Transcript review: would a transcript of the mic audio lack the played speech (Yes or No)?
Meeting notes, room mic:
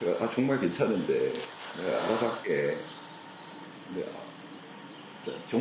Yes